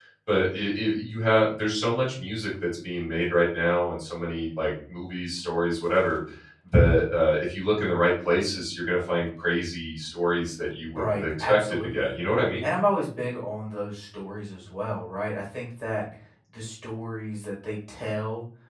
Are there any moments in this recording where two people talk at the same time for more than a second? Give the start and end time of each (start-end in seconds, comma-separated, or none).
10.9-12.2